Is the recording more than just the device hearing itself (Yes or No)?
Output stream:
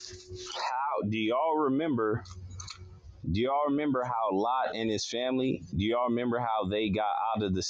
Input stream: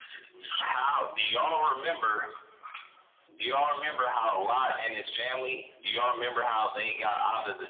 No